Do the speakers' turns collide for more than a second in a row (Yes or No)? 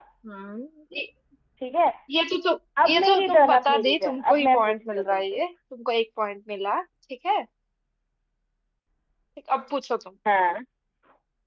Yes